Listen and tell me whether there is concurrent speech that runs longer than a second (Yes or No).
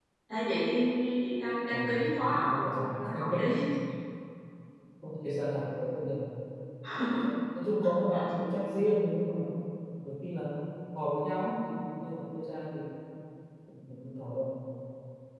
Yes